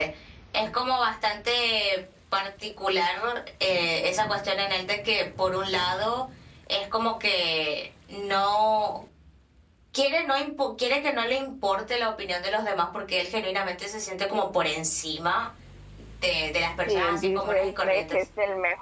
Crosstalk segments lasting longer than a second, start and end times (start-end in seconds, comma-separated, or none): 16.9-18.2